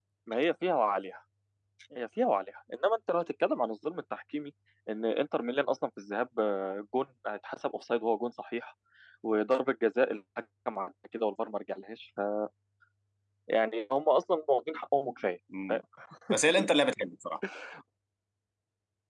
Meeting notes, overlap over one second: none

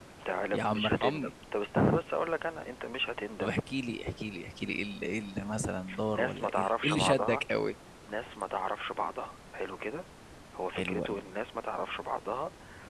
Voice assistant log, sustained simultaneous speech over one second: present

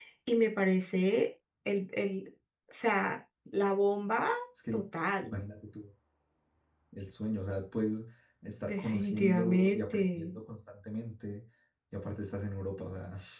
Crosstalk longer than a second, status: present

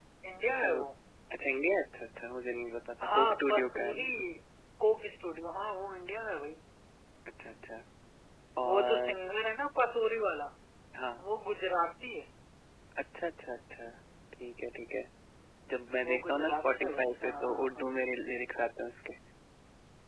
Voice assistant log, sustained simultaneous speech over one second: present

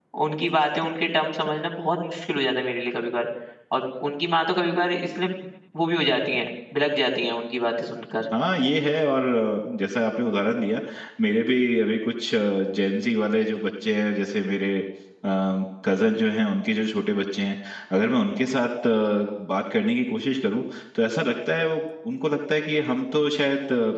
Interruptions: none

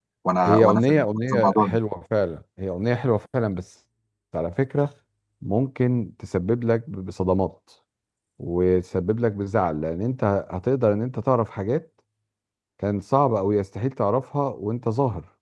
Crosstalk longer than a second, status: present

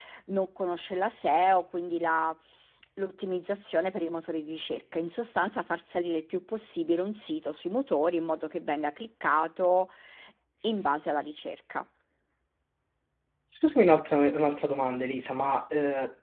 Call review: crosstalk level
none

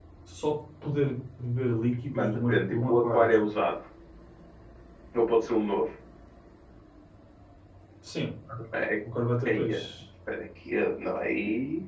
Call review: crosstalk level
present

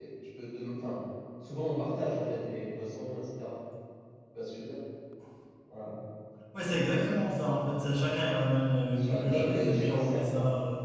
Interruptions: present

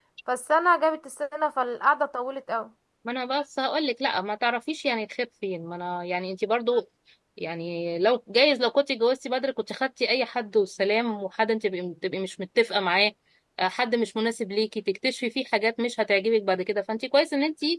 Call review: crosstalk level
none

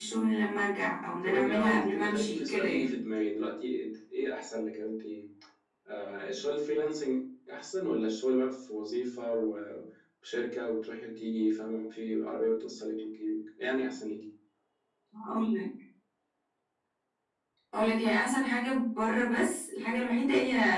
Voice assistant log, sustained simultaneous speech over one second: present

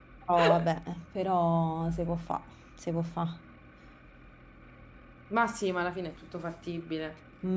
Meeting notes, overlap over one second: none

